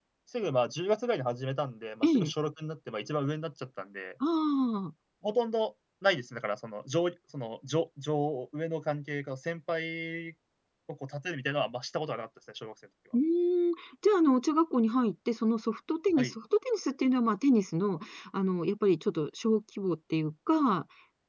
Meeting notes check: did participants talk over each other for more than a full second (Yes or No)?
No